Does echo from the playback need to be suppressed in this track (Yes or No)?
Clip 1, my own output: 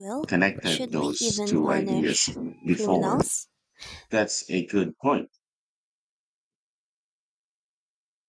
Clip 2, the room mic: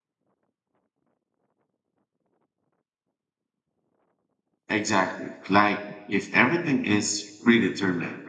No